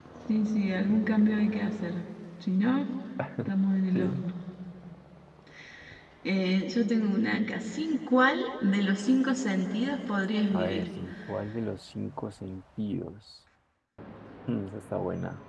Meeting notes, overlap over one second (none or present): none